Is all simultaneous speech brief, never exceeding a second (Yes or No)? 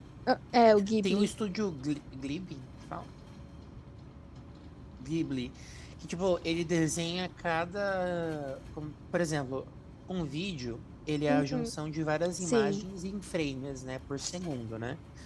Yes